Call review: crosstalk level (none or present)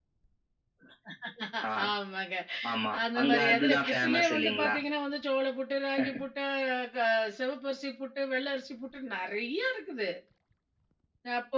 present